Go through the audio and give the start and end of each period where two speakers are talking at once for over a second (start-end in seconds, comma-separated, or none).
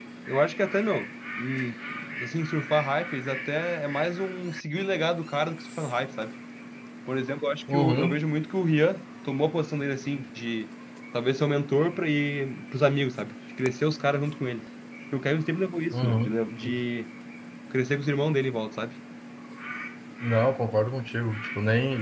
none